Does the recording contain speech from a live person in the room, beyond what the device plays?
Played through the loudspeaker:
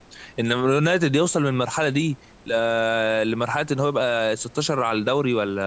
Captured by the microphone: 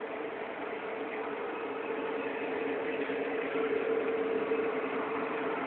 No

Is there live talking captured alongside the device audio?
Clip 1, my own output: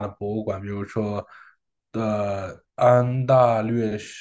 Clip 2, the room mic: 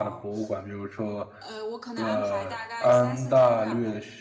Yes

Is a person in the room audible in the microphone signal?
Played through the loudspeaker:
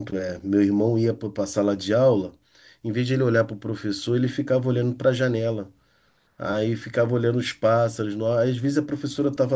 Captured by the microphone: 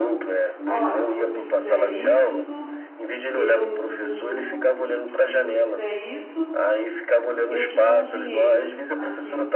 Yes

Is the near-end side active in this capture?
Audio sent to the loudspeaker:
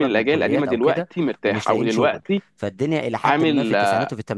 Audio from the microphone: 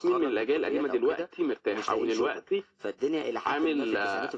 No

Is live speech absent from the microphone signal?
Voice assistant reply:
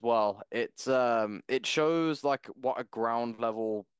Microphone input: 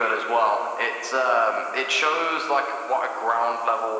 Yes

